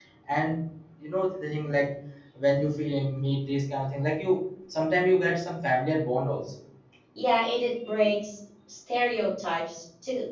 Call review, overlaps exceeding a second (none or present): none